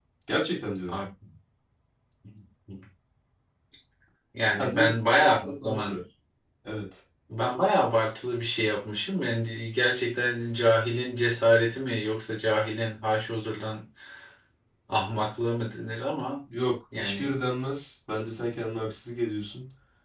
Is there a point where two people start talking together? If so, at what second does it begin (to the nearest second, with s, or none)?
5 s